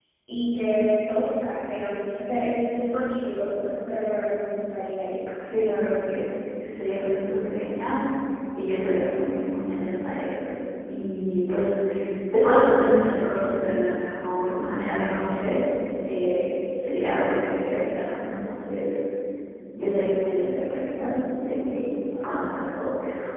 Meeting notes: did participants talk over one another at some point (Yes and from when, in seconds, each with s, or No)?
No